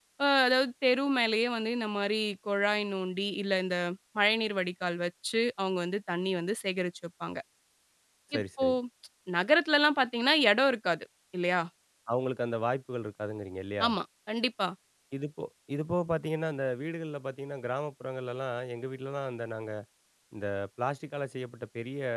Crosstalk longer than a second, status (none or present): none